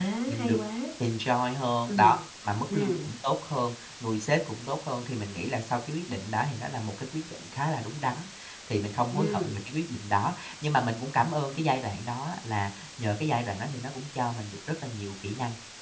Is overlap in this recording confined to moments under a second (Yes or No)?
Yes